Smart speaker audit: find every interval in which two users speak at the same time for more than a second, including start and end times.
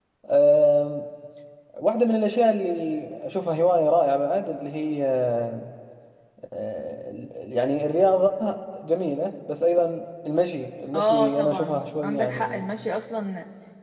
10.9-12.6

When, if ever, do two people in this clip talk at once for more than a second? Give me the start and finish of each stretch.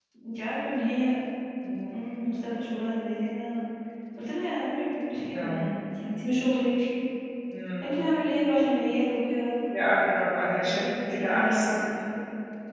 10.6-11.8

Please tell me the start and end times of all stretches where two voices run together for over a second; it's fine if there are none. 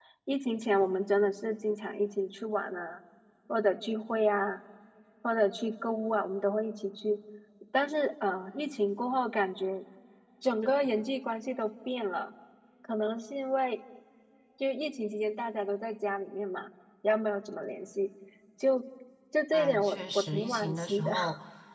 19.5-21.1

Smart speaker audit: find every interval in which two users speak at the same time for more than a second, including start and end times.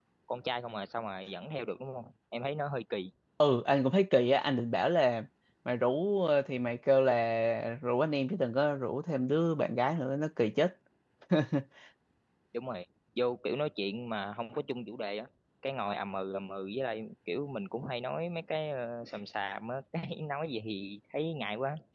none

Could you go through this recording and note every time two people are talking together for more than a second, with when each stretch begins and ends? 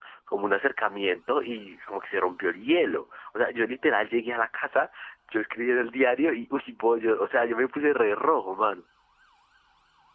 none

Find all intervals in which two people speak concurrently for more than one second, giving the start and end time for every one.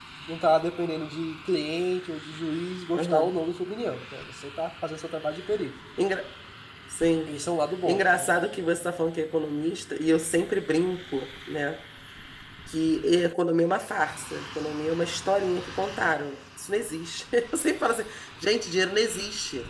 none

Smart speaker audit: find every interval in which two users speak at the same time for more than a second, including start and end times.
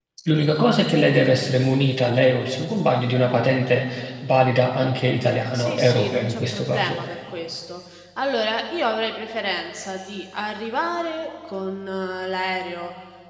5.5-7.0

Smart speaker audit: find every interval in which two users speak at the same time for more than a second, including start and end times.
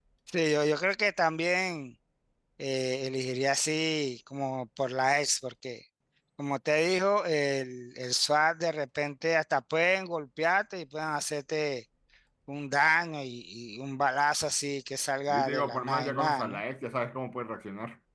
15.3-16.6

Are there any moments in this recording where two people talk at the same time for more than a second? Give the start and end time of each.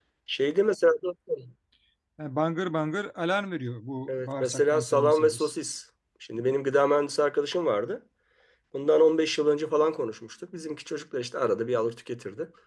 4.1-5.5

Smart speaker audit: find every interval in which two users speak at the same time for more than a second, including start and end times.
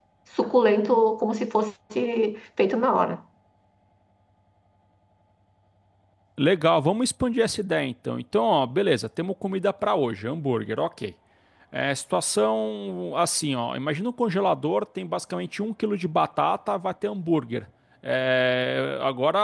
none

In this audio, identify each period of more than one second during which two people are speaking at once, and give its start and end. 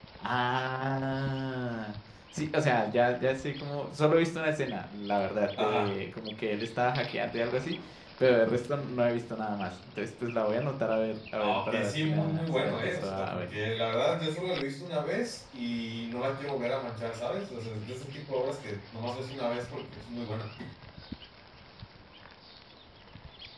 11.4-13.6

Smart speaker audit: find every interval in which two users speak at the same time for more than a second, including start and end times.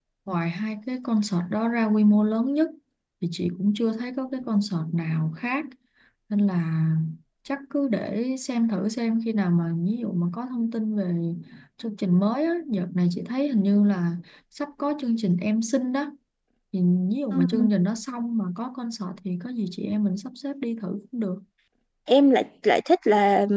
none

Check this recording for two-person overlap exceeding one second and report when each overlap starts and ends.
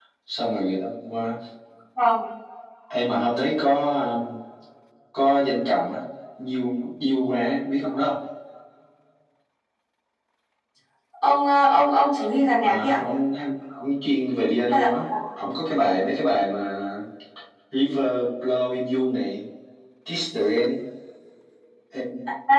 none

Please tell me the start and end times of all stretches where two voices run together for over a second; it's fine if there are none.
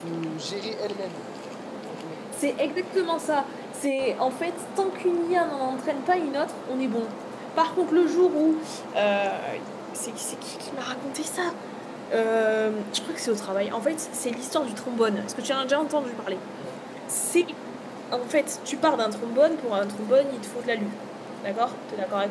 none

